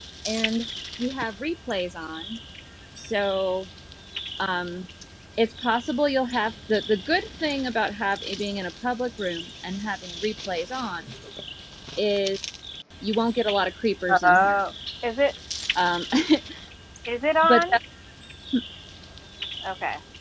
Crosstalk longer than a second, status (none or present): none